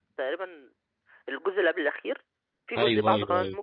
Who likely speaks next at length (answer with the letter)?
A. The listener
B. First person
A